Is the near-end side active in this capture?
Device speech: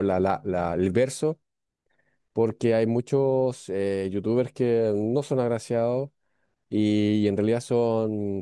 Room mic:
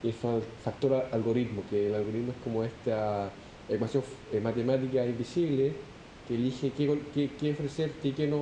Yes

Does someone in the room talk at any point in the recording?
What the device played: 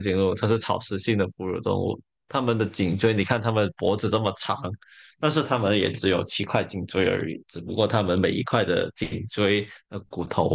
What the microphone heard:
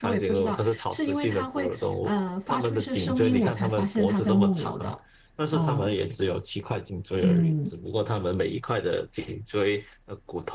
Yes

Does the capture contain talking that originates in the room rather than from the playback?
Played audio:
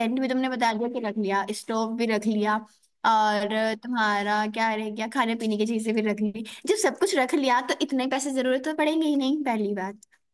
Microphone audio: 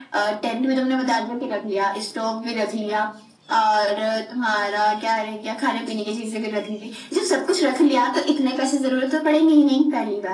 No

